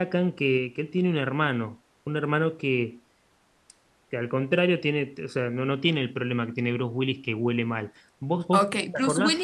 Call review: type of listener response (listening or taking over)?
taking over